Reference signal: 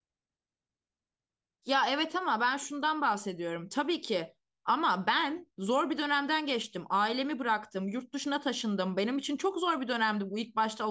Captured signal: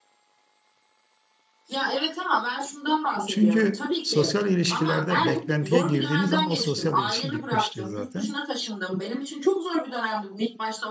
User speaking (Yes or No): Yes